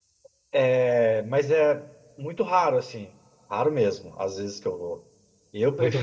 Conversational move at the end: listening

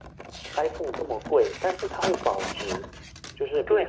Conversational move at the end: taking over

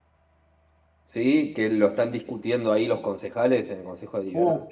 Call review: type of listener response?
taking over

